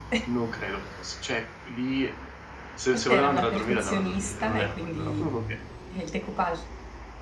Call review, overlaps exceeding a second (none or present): present